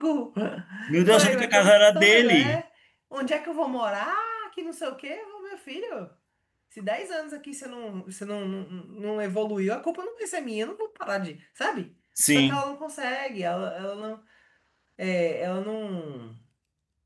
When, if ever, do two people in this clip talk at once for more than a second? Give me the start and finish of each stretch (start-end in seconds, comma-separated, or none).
1.1-2.6